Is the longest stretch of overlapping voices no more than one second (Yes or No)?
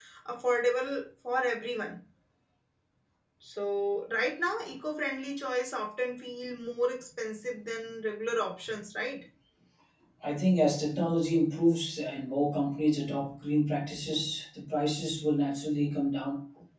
Yes